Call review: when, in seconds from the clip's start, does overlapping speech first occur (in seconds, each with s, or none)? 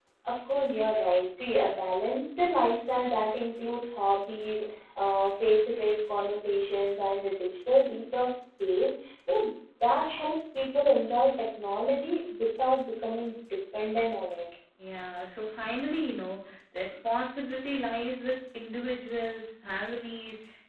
none